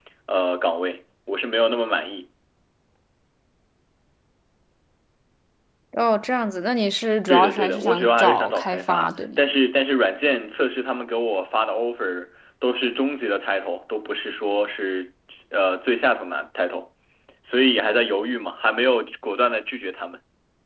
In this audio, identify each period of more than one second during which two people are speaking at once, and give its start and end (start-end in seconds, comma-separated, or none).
7.3-9.4